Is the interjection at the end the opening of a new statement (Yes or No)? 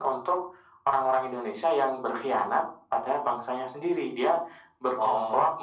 No